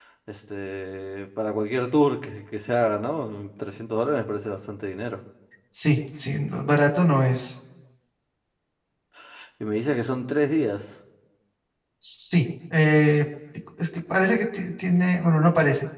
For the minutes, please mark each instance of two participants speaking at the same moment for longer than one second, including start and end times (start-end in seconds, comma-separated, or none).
none